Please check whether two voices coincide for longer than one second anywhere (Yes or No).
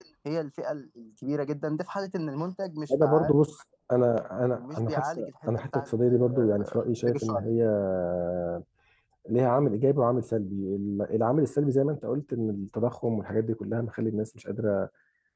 Yes